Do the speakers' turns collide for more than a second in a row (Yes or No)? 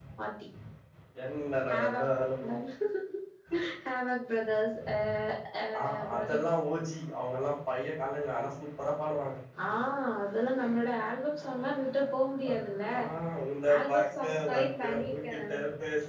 Yes